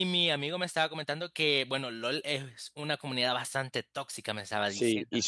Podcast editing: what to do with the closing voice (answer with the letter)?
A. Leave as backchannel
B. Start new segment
B